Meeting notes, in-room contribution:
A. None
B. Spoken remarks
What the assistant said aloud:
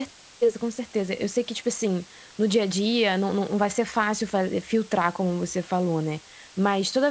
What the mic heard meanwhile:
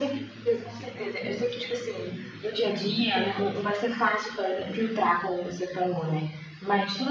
B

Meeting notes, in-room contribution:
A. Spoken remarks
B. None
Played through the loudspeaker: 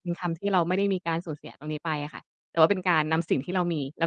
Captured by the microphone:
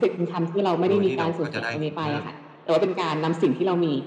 A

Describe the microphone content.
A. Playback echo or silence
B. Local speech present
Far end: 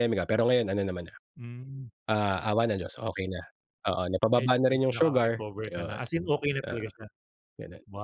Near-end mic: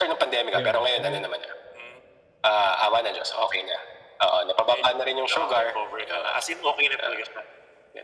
B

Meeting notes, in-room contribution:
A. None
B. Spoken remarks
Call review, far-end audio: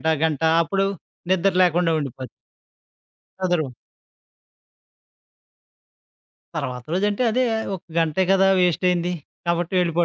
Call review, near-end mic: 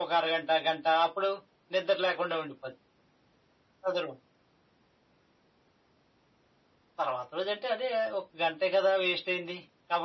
A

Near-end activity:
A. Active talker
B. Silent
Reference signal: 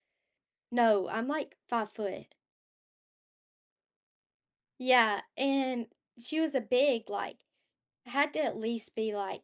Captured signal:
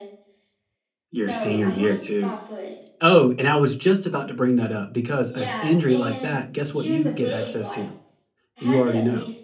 A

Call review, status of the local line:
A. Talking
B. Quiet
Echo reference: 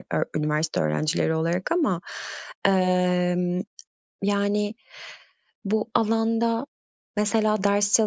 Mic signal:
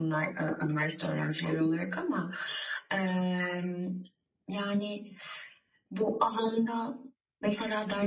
B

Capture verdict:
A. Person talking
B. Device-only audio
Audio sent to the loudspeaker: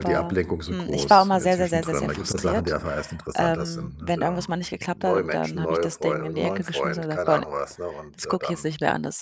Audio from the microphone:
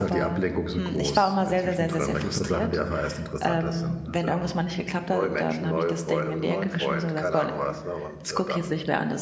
B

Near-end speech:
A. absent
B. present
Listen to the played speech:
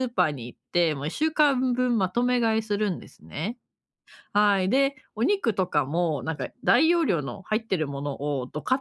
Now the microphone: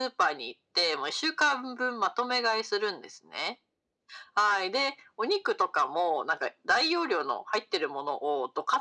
A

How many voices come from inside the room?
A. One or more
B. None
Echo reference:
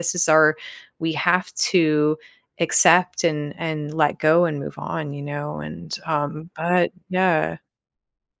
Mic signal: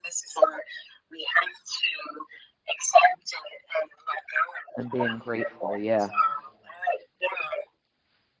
A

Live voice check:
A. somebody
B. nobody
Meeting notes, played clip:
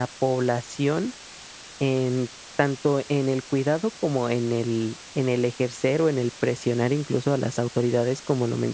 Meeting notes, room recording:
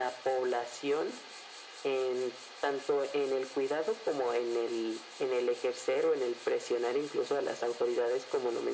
B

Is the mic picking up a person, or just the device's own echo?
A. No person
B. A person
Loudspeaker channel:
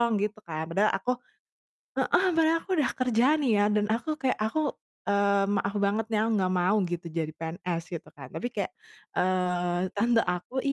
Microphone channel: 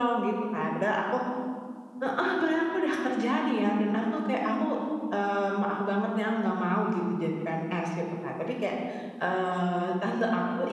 A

